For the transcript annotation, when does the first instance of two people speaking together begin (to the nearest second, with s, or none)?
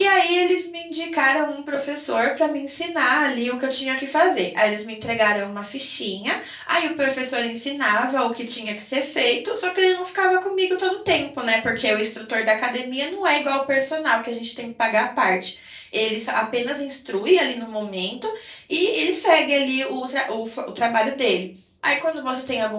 none